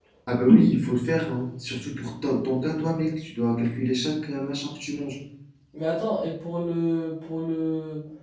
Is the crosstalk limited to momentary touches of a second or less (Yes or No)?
Yes